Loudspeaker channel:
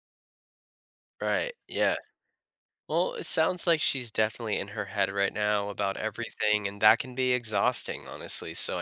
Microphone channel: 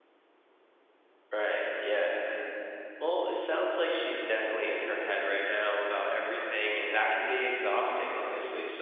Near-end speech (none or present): none